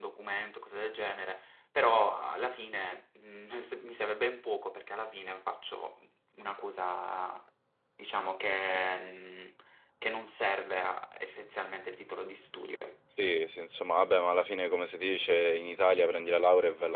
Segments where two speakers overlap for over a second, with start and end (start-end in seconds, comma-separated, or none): none